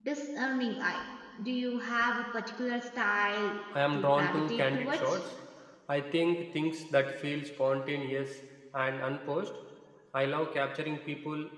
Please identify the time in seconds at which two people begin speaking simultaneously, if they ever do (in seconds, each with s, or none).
3.9 s